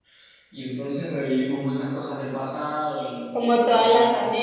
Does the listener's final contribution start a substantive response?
Yes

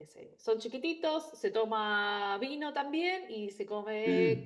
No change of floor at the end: Yes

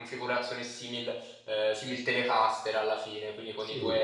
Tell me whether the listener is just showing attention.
Yes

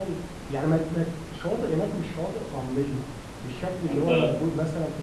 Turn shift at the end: No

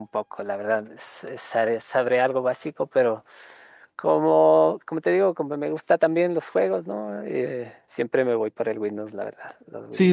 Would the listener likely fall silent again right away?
No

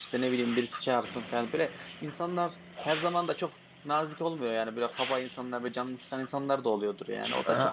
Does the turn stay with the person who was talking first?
Yes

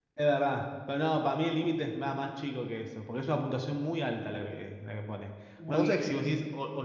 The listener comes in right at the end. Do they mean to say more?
No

